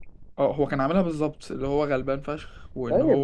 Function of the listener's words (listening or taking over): taking over